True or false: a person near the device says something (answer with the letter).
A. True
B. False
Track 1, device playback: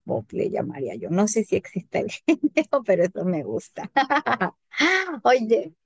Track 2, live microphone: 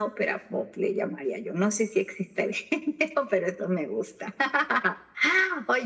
B